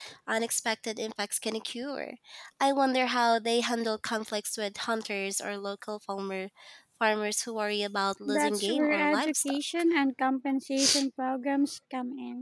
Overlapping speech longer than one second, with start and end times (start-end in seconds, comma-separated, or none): 8.2-9.6